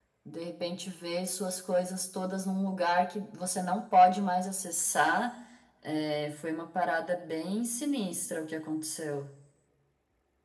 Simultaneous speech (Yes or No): No